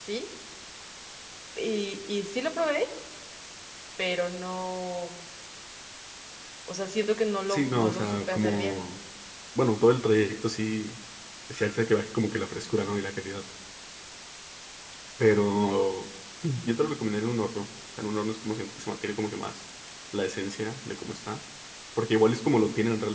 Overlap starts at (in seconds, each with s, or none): 7.5 s